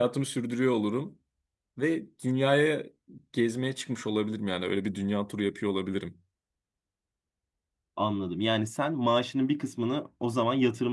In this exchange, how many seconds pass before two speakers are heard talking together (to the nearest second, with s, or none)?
none